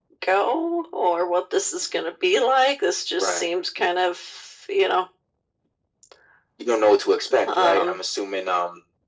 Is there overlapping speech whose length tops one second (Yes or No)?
No